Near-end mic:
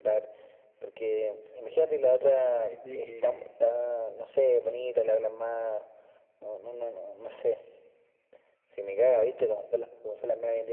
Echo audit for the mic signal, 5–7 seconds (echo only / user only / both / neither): echo only